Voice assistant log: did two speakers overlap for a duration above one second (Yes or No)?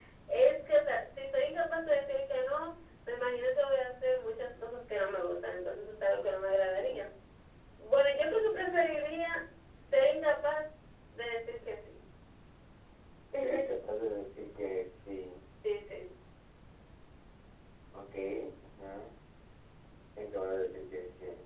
No